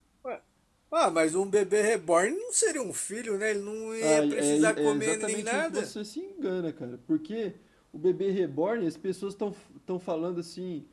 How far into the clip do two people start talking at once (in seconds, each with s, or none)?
4.0 s